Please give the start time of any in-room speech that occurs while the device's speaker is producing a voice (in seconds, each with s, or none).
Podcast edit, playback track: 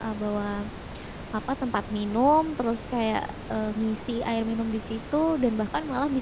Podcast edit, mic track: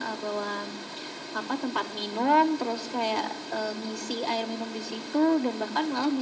none